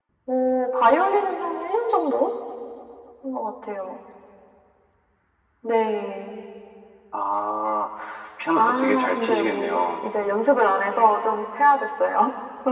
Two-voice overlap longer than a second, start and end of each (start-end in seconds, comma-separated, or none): 8.6-9.8